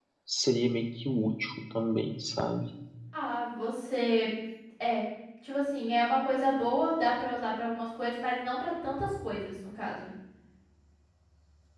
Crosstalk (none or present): none